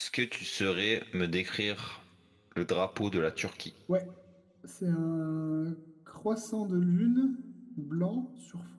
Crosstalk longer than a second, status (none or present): none